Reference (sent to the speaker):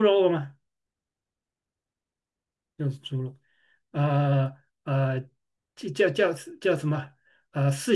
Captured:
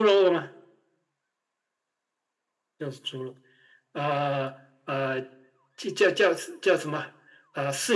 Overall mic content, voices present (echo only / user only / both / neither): echo only